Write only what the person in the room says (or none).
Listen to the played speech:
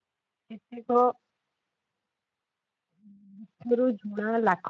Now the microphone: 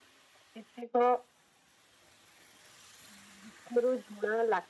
none